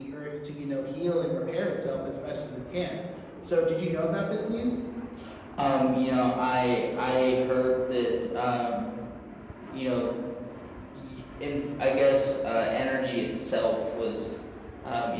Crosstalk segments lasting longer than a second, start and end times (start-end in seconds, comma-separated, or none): none